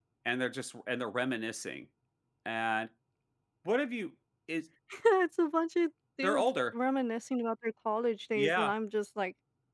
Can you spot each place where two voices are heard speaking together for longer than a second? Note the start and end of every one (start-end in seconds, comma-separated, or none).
none